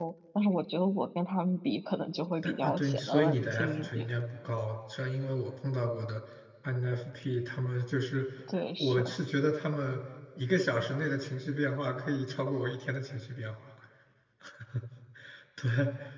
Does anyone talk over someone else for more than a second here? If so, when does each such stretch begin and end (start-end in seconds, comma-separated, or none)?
2.4-4.1